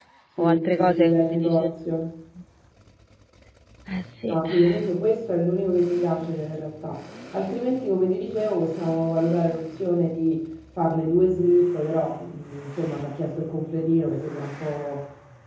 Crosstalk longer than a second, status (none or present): present